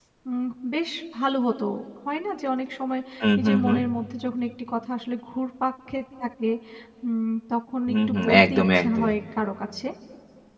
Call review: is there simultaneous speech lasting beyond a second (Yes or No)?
Yes